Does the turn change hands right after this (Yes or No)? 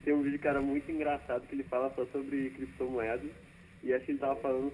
No